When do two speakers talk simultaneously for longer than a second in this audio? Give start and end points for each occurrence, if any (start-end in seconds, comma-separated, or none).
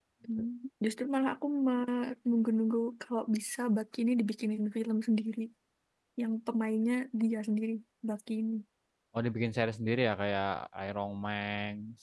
none